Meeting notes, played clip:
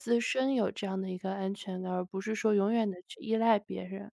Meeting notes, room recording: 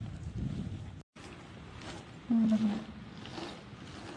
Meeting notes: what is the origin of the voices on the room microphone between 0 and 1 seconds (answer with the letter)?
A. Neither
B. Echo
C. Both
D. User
A